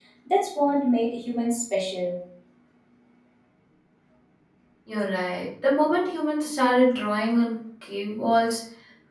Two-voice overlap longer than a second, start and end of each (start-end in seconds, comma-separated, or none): none